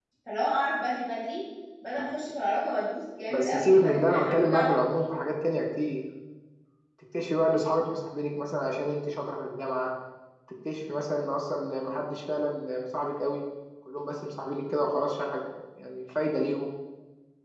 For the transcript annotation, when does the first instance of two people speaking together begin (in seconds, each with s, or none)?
3.3 s